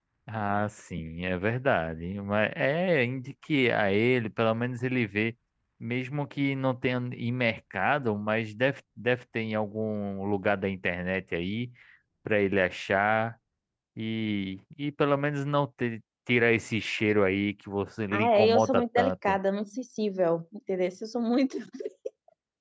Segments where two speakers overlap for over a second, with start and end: 18.1-19.4

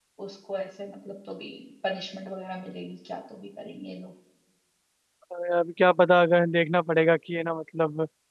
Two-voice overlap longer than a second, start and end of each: none

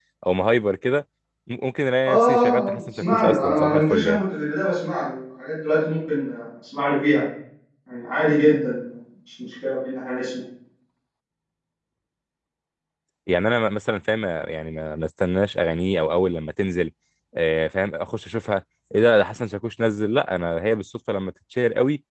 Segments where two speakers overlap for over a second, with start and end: 2.1-4.2

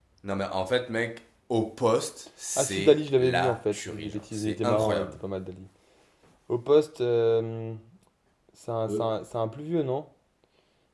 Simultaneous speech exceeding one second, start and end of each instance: 2.6-5.1

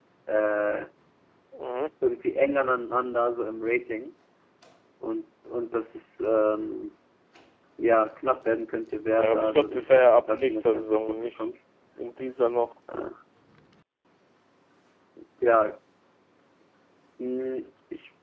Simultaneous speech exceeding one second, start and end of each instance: 9.2-11.5

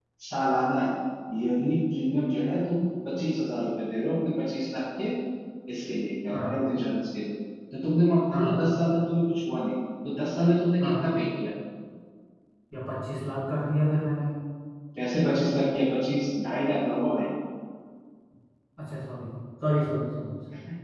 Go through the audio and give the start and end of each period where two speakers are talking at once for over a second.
none

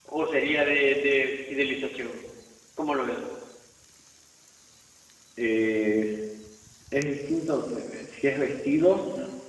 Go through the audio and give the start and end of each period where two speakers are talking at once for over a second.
none

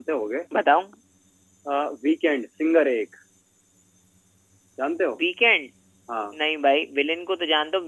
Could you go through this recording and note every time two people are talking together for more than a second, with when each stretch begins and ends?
none

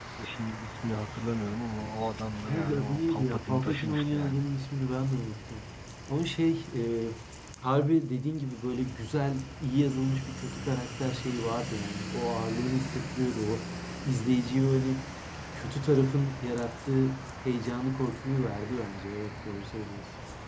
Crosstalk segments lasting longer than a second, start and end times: 2.4-4.4

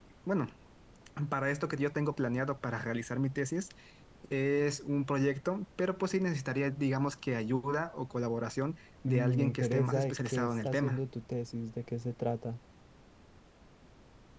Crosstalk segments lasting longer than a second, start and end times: 9.1-11.0

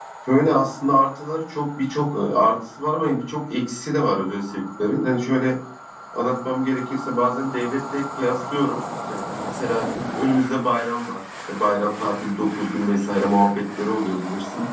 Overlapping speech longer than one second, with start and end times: none

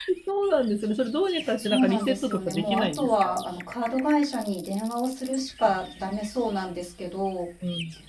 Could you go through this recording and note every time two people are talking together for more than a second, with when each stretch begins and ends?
1.6-3.4

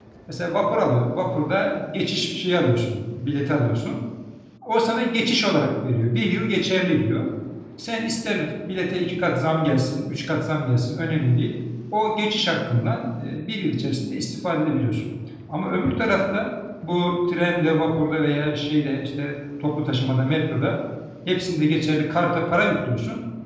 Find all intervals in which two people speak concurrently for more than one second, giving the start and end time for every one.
none

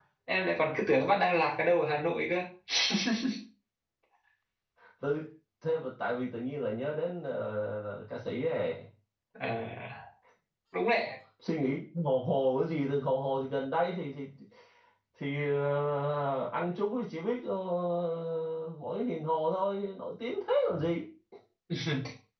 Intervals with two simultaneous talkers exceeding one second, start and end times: none

